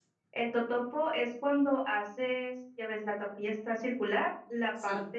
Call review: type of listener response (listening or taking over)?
listening